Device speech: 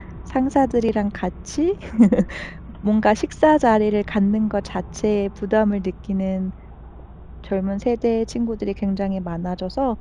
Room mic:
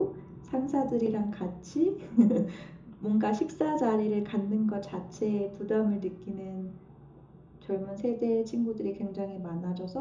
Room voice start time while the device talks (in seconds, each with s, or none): none